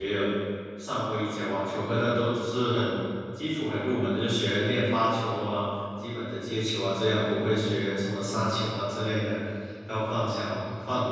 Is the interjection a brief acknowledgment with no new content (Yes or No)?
Yes